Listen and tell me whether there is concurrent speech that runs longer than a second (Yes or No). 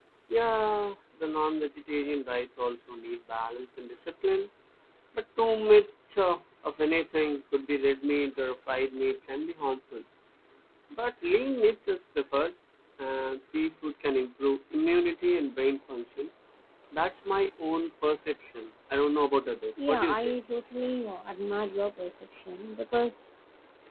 No